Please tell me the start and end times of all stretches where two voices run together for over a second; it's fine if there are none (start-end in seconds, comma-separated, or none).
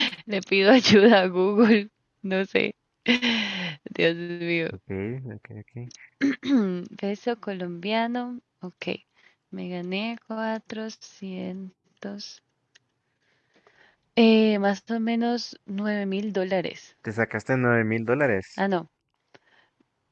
none